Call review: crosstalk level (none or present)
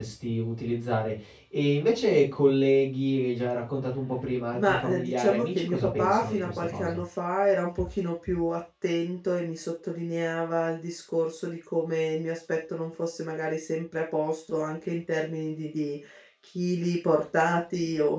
present